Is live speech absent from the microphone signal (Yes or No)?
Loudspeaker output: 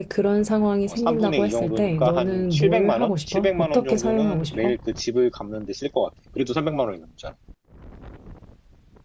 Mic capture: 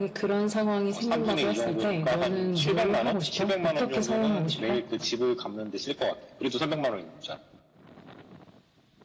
Yes